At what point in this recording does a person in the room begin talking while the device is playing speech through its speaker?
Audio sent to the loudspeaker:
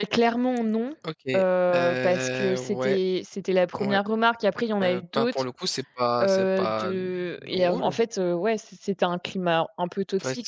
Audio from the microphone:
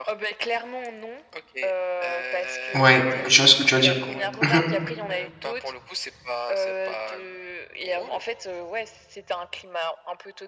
2.7 s

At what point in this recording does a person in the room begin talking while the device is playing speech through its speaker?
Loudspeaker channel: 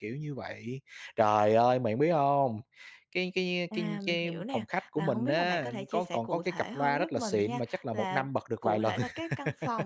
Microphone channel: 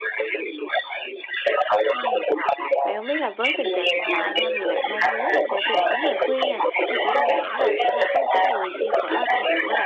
1.9 s

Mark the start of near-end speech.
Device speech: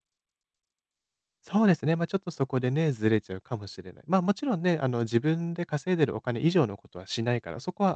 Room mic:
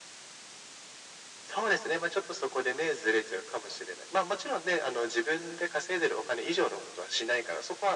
none

